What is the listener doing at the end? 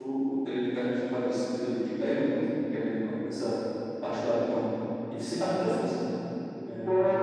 taking over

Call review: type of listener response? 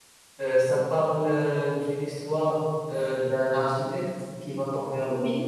listening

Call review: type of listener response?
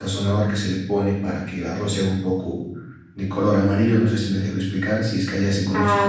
taking over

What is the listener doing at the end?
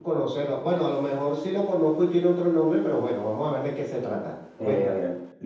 taking over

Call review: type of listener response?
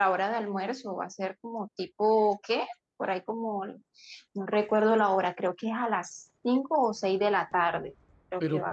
taking over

